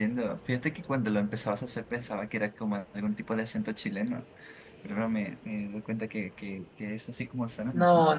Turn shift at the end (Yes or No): Yes